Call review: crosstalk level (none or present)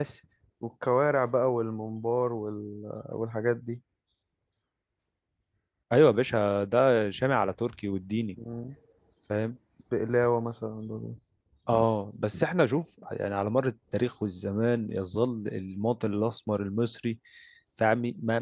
none